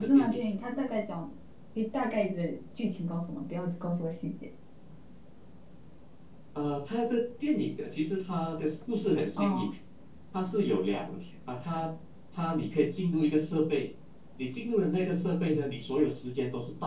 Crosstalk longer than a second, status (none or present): none